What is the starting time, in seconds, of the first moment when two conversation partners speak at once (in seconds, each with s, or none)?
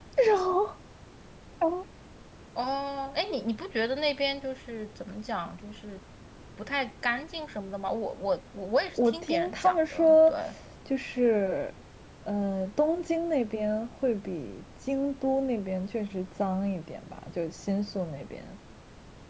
8.9 s